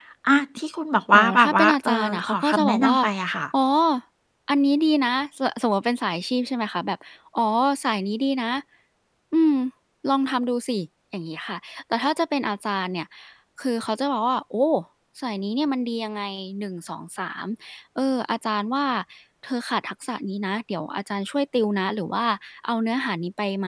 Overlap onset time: 1.1 s

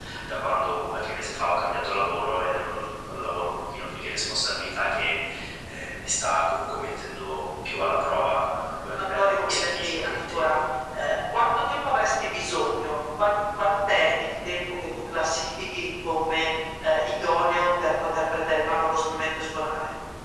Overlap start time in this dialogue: 9.1 s

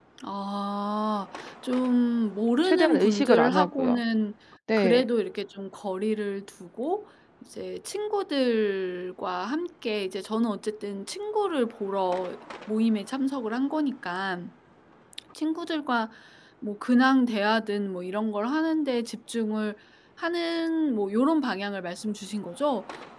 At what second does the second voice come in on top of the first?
2.6 s

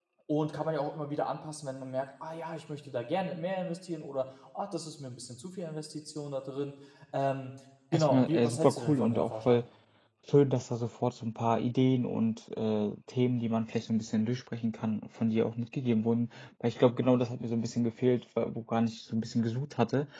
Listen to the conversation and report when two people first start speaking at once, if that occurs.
7.9 s

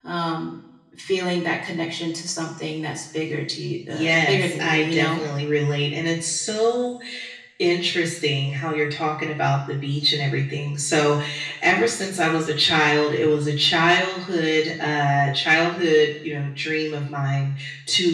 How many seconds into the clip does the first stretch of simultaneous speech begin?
3.9 s

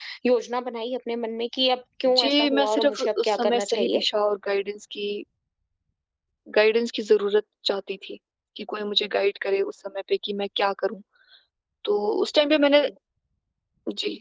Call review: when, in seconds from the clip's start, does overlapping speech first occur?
2.0 s

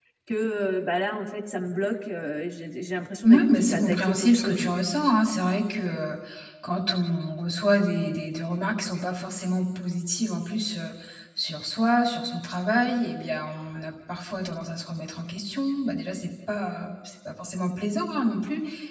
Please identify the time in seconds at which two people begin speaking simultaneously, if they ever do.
3.2 s

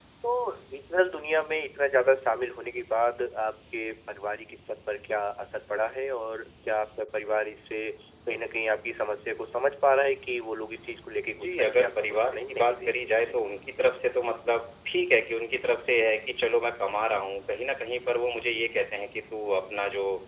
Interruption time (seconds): 11.4 s

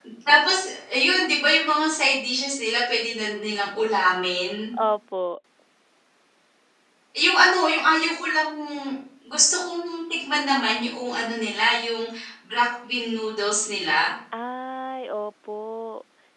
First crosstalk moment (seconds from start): none

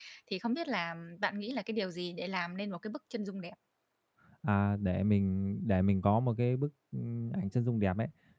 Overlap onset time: none

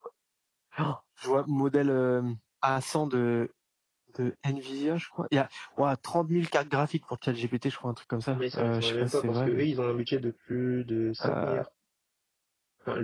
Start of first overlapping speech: 8.3 s

